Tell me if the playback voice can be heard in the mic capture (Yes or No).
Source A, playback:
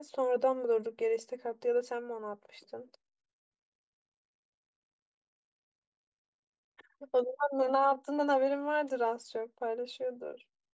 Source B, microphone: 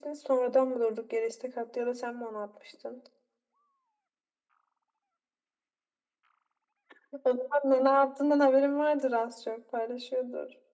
Yes